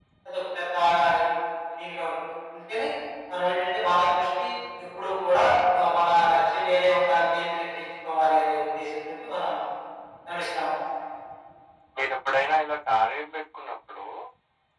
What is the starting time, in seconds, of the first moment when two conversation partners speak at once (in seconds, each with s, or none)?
none